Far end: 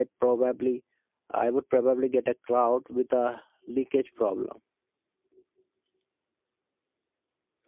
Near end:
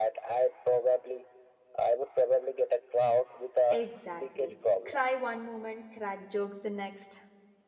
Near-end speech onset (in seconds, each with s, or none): 3.7 s